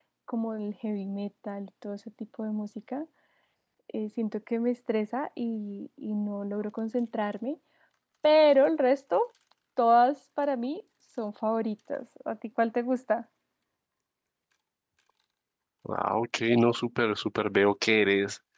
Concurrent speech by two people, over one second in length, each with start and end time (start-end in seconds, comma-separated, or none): none